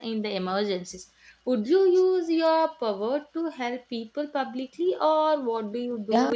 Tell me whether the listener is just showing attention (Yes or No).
No